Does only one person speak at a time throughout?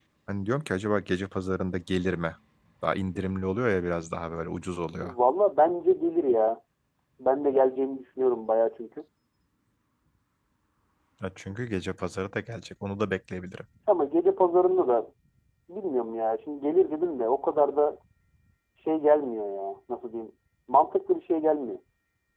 Yes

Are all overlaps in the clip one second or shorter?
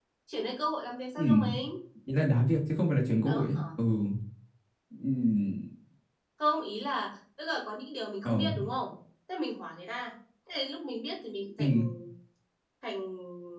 Yes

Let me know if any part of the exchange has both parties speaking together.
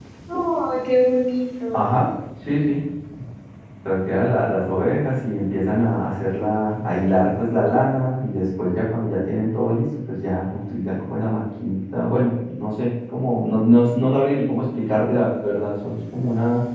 No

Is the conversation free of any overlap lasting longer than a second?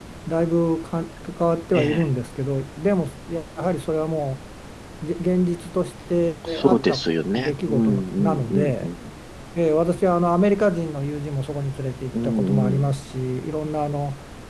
No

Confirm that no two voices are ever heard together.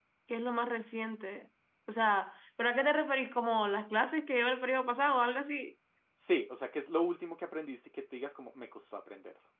Yes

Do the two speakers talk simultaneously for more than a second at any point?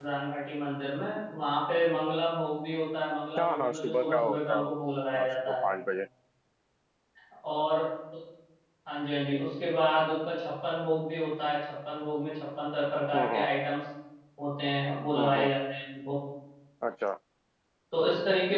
Yes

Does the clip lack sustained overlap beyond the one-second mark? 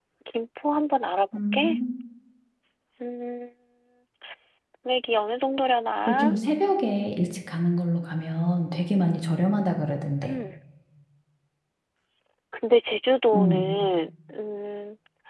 Yes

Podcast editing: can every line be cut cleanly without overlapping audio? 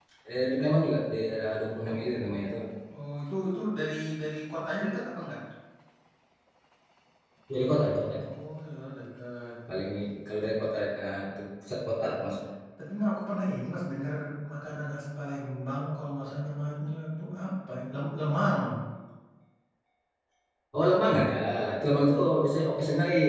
Yes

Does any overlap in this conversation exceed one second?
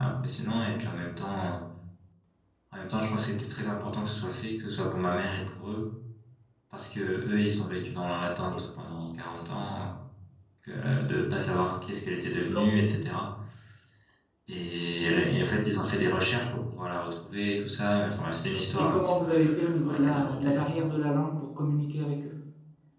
Yes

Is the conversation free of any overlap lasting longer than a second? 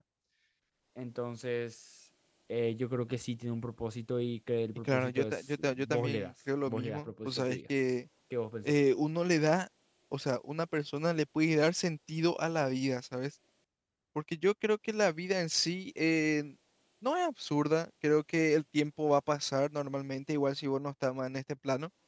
No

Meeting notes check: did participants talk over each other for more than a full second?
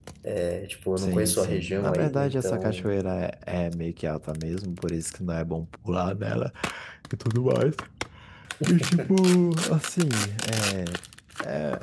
Yes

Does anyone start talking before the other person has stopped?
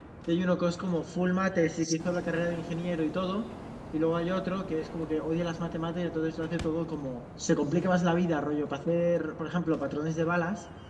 No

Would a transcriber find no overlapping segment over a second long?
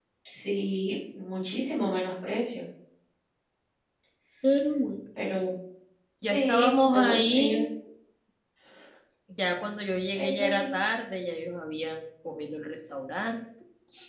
No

